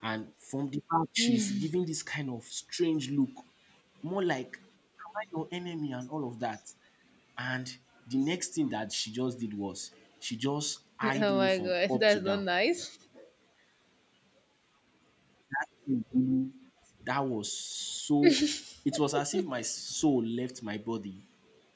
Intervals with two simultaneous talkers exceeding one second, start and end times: 11.2-12.4

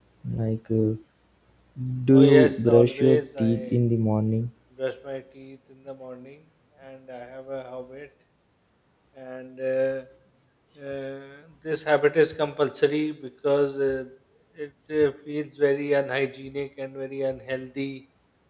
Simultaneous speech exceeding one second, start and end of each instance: 2.1-3.8

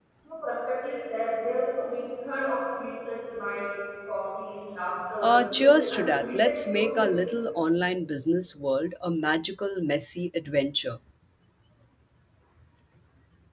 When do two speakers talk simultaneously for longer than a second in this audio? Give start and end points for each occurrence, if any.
5.2-7.0

